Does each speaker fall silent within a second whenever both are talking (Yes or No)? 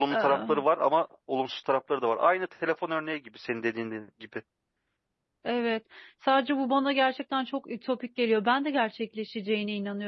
Yes